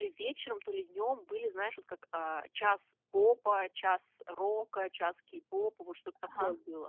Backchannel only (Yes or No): Yes